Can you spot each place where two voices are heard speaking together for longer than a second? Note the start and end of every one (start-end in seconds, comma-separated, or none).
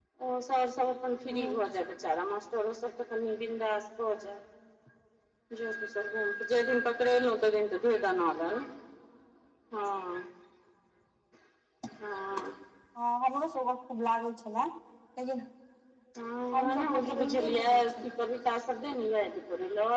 16.6-18.1